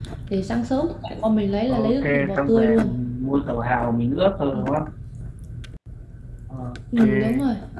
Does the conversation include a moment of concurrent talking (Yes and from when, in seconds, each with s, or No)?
Yes, from 1.7 s